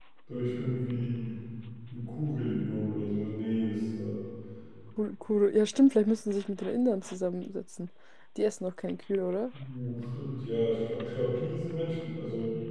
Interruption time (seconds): none

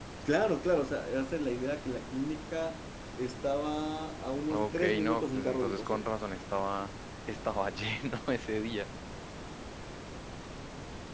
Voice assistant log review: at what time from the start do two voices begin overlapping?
4 s

